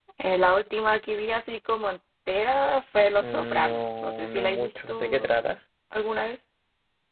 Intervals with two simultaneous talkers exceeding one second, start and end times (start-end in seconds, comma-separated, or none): 3.2-5.3